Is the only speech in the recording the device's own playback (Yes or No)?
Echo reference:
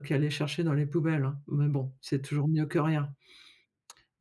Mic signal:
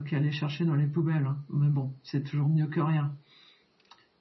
Yes